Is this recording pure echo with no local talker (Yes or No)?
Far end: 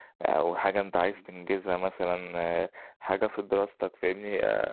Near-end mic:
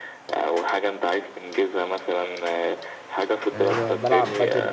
No